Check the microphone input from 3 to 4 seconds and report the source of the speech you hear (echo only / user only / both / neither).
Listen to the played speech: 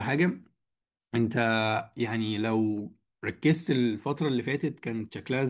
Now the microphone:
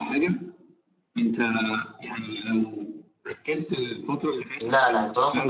echo only